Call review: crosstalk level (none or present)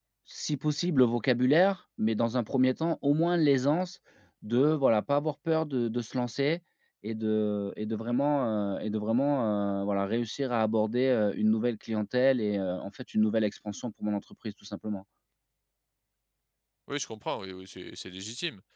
none